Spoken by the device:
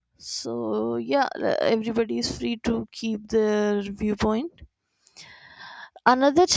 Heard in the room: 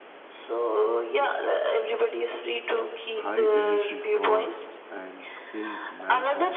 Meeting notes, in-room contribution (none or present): present